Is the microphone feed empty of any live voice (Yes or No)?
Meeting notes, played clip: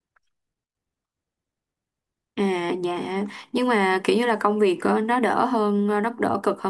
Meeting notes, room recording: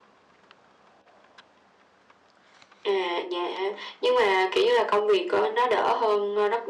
Yes